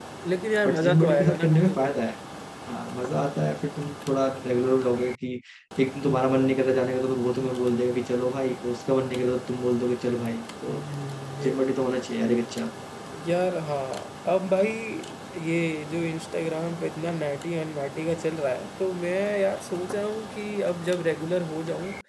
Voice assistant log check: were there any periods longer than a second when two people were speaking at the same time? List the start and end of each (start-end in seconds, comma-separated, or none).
0.7-1.9